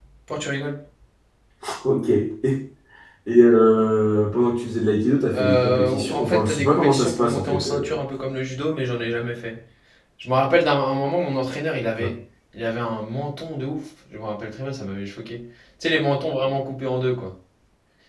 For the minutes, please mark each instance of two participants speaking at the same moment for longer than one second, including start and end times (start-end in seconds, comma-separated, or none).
5.3-8.0